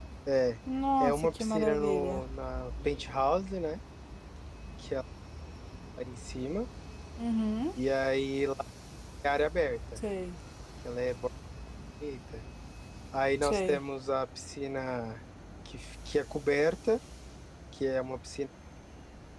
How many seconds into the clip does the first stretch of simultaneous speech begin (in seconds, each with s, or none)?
1.0 s